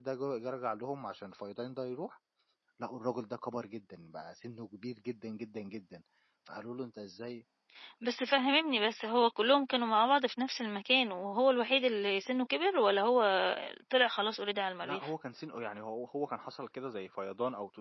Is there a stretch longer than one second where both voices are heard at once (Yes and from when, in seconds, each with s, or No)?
No